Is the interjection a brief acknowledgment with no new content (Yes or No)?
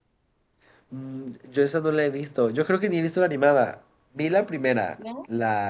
Yes